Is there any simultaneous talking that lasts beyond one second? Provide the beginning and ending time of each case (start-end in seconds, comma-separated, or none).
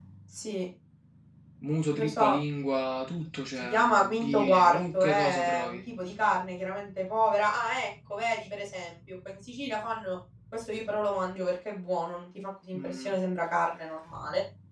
3.6-5.8